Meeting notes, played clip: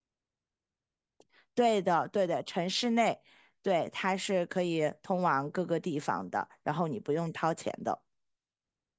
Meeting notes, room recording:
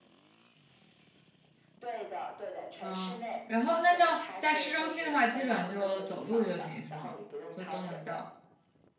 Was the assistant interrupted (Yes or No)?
Yes